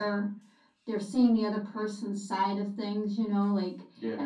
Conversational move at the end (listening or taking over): listening